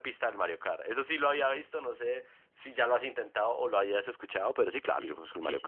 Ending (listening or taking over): taking over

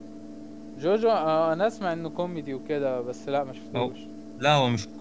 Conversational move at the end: taking over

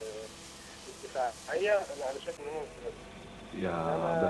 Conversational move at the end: taking over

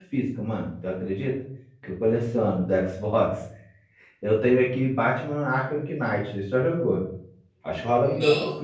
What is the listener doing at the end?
taking over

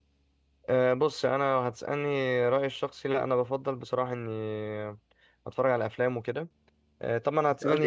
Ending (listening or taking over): taking over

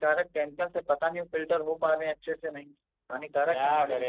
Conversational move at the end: taking over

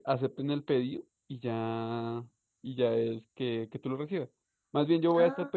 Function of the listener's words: listening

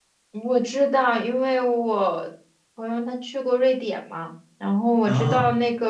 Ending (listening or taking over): listening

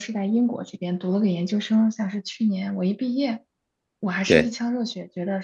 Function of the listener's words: listening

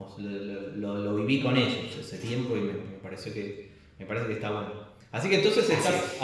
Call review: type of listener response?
listening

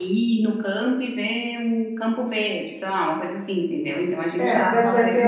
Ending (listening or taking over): taking over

